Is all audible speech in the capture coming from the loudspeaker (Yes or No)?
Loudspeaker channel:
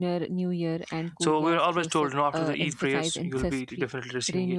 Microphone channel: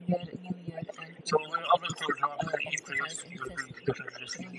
Yes